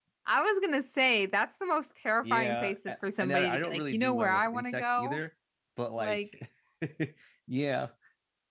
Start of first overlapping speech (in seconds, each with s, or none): 2.2 s